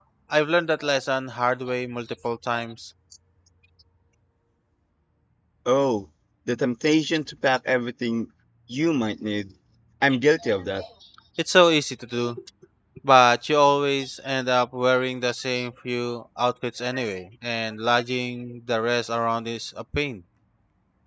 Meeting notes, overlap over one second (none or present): none